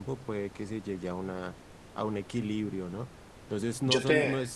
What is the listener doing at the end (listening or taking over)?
listening